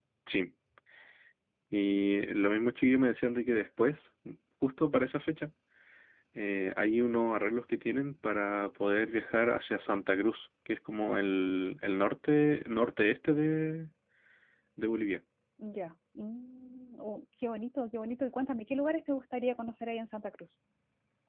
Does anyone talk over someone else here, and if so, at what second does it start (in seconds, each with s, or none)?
none